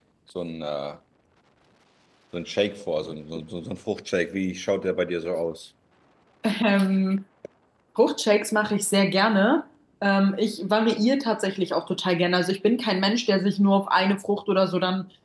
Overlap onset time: none

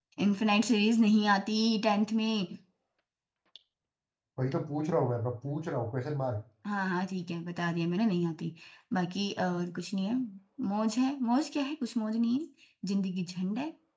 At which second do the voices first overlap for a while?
none

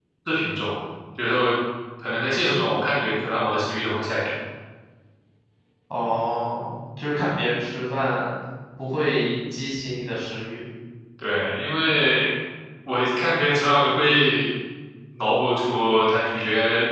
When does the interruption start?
none

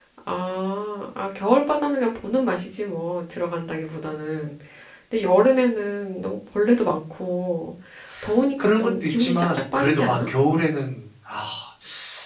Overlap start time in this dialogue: 8.6 s

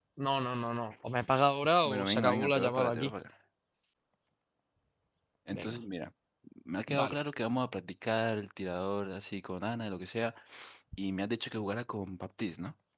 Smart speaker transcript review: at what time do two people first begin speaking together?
1.9 s

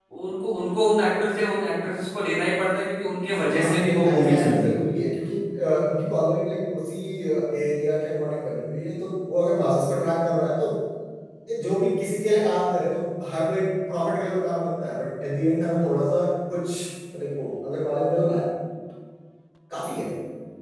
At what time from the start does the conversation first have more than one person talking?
3.5 s

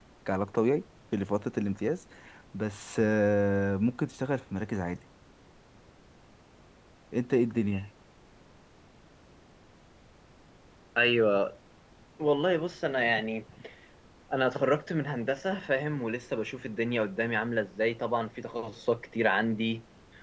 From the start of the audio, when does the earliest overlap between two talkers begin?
none

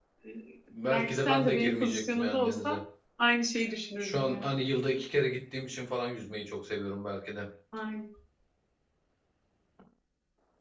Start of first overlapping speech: 0.9 s

